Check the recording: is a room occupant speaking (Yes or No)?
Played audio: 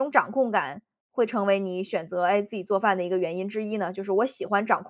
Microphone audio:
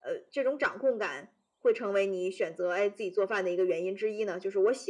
No